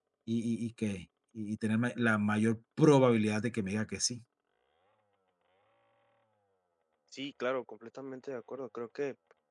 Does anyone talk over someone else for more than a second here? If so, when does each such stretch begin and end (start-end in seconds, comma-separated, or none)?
none